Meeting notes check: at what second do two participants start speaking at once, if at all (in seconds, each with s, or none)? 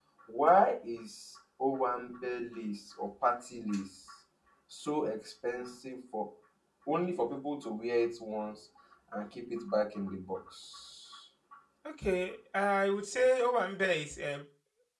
none